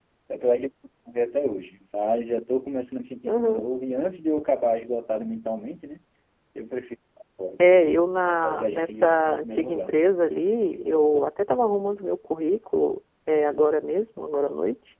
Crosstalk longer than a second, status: present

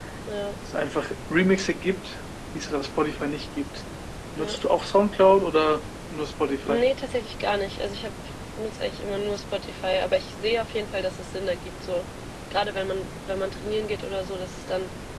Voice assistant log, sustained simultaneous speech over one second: none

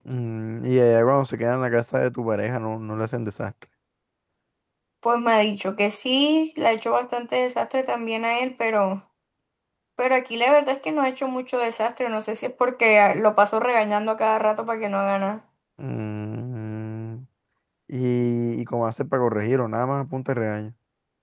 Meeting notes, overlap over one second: none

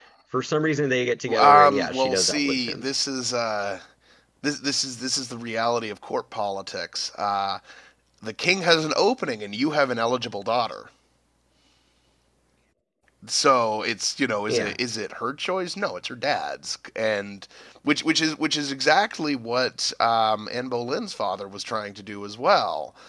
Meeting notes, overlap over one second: present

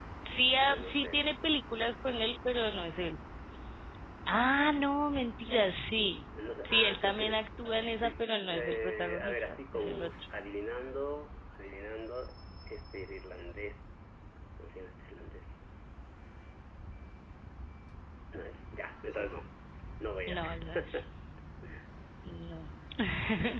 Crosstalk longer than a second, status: present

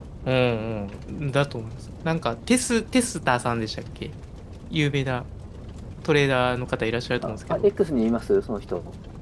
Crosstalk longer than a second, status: none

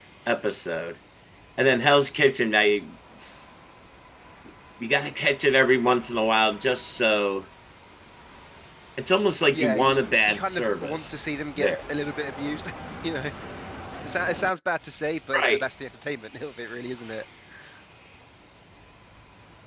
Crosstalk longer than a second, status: present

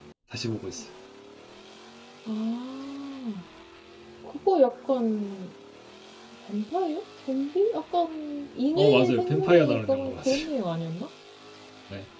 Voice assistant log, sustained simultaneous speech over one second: present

